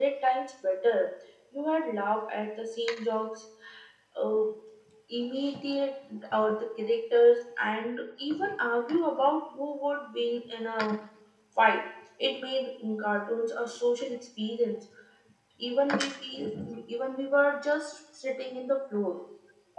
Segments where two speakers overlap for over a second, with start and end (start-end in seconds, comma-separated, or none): none